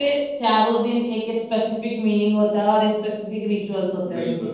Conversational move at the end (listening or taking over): taking over